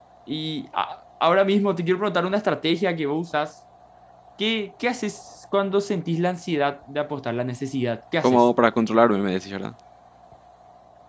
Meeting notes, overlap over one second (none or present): none